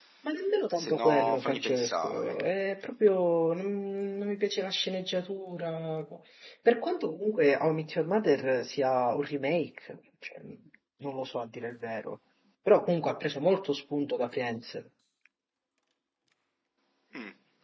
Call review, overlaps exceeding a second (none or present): present